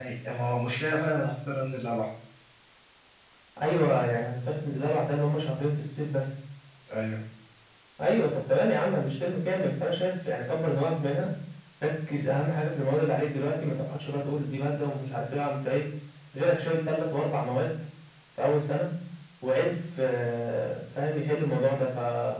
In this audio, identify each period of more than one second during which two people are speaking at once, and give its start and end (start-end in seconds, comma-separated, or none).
none